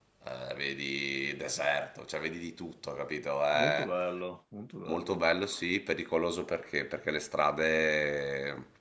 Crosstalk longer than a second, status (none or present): none